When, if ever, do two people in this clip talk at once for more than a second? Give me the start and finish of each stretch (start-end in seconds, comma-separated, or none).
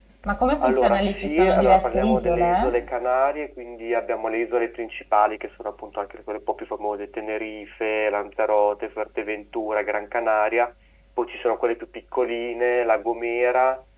0.6-2.7